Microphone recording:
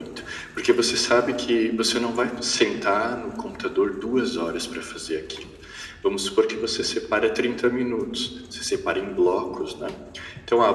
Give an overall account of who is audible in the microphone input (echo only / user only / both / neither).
echo only